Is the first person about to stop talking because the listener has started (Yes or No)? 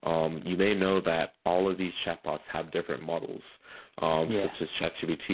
No